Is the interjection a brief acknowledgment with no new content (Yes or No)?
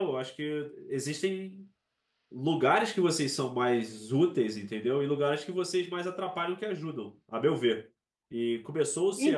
No